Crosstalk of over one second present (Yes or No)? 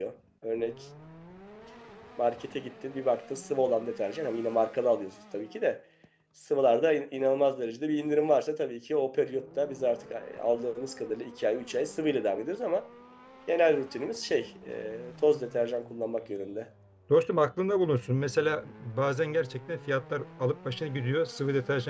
No